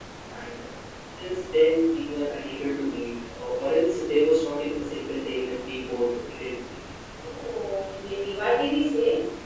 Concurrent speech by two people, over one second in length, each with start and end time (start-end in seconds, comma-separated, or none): none